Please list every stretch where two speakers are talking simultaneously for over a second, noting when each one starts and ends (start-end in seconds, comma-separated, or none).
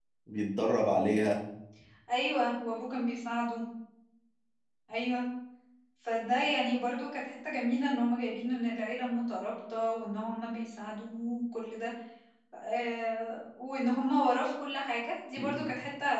none